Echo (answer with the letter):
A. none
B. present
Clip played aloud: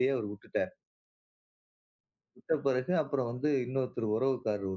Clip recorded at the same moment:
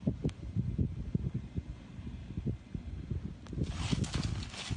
A